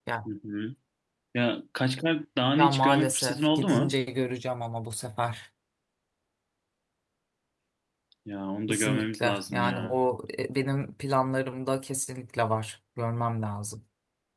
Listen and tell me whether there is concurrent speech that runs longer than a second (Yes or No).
Yes